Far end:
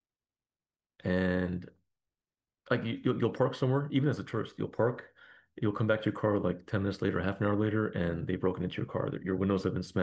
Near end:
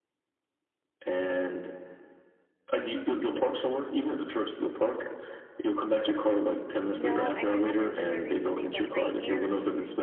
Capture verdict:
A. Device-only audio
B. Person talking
B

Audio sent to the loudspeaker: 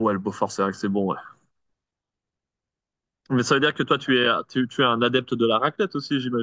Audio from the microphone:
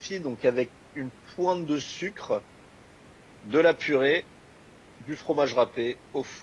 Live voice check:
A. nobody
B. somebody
B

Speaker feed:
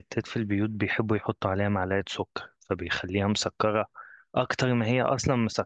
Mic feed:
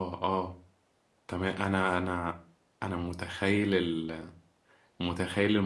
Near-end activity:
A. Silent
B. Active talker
B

